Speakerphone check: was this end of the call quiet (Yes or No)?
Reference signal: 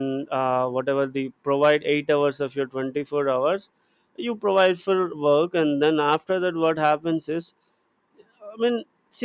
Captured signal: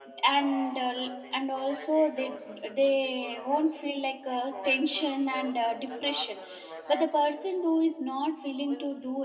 No